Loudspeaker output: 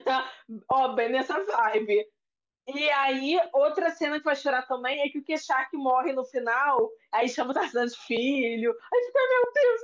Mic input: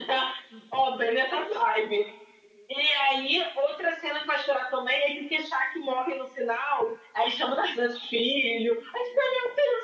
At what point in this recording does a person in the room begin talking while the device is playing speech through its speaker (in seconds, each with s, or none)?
none